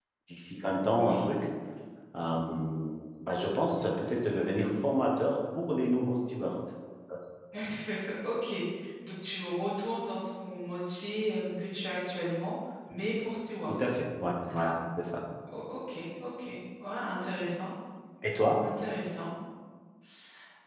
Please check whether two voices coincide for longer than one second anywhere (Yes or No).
No